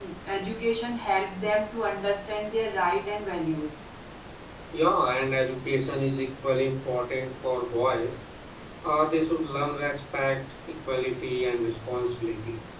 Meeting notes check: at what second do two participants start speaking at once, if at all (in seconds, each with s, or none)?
none